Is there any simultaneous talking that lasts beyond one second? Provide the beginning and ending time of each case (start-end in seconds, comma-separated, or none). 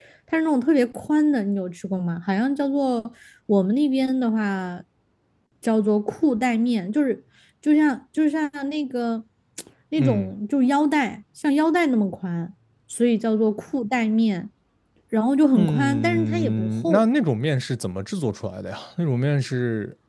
15.6-17.0